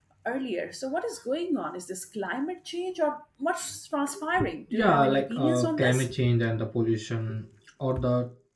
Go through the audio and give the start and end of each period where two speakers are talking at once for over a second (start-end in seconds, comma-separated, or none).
4.7-6.1